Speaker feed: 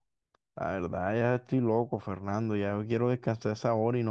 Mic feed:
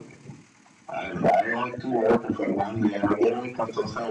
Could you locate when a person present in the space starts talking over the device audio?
none

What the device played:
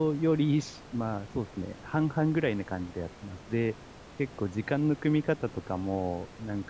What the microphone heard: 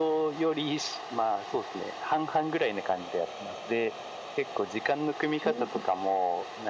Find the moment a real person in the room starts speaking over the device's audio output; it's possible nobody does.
5 s

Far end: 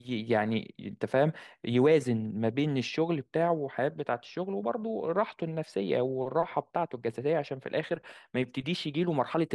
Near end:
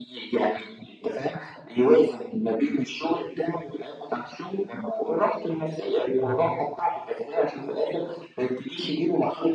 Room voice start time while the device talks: 6 s

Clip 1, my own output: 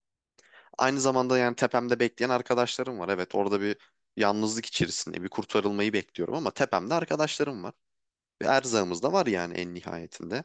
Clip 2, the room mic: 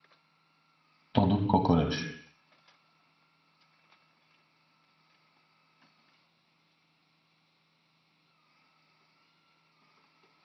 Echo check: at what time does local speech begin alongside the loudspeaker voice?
1 s

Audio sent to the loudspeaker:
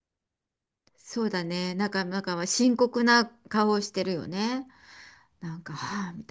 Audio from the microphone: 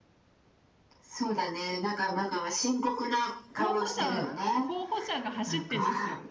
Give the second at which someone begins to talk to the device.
4 s

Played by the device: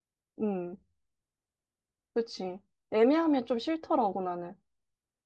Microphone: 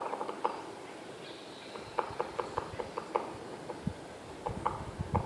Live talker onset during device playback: none

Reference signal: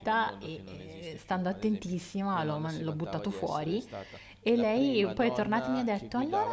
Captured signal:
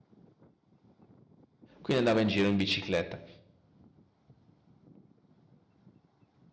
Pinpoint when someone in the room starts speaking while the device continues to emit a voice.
2 s

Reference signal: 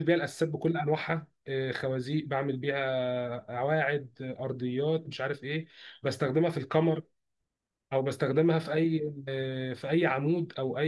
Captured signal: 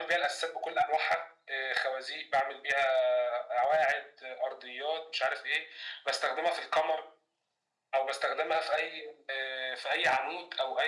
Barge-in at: none

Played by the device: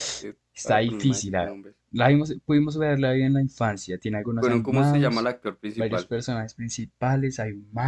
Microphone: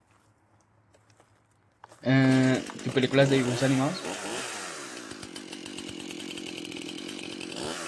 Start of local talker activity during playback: 2 s

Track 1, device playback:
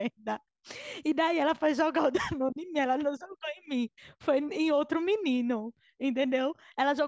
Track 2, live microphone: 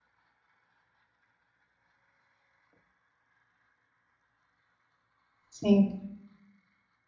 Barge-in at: 5 s

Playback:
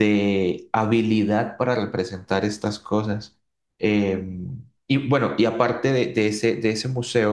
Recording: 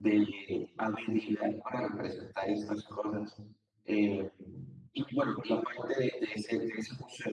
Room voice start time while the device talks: none

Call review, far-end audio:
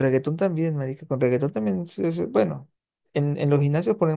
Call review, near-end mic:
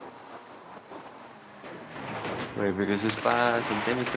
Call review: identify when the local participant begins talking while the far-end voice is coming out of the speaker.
3 s

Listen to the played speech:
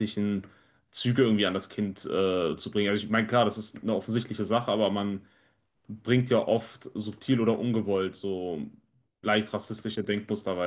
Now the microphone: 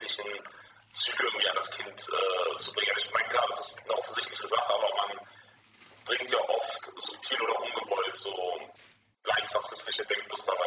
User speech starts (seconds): none

